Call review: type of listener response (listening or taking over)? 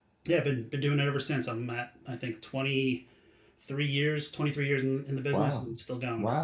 taking over